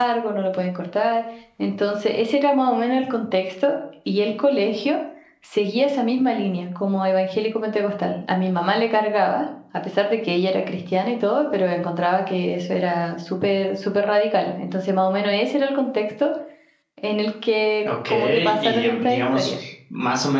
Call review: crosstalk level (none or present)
present